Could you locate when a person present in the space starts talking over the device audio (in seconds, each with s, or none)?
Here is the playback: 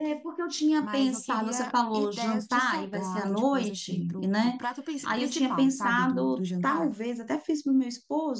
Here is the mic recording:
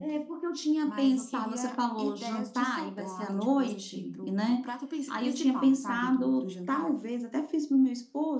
none